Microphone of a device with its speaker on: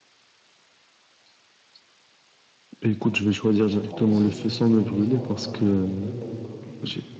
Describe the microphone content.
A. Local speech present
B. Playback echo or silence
A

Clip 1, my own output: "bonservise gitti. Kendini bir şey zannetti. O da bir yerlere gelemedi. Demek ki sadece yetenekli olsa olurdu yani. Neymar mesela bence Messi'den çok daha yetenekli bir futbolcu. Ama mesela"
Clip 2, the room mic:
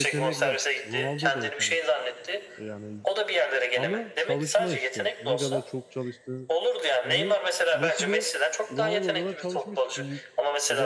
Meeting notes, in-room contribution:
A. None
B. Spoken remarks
B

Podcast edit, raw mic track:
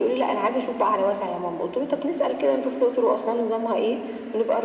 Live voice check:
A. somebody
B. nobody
B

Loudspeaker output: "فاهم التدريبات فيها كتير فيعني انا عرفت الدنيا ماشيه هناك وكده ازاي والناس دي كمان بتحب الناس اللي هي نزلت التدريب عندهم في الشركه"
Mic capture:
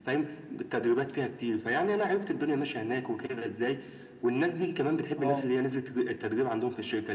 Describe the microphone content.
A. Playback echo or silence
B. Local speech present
B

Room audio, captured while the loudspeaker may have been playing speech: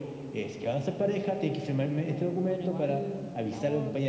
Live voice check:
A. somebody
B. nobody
A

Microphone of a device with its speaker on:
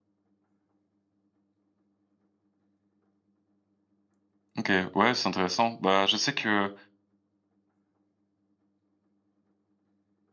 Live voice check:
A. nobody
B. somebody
B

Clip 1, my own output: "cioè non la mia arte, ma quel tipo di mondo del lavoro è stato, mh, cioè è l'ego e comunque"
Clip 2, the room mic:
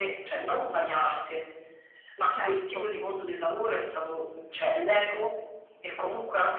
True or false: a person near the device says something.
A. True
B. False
A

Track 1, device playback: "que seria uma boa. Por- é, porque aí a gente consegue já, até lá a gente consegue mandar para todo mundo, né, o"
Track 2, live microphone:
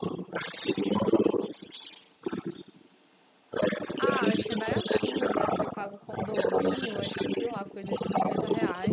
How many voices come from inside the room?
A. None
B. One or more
B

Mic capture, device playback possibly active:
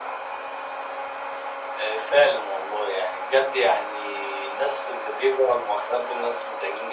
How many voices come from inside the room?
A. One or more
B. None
B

